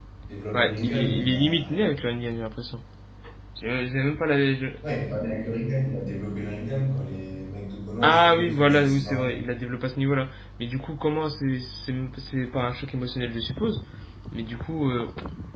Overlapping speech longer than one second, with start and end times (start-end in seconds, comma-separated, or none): 0.5-1.9, 8.0-9.3